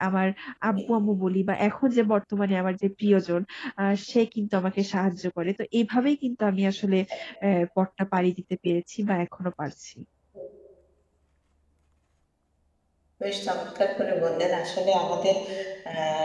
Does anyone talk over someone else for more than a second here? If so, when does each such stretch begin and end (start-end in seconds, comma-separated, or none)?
none